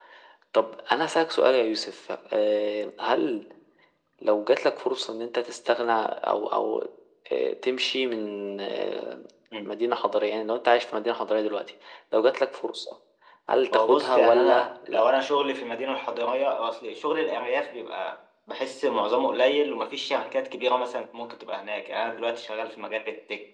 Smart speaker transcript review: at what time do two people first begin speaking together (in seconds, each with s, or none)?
13.7 s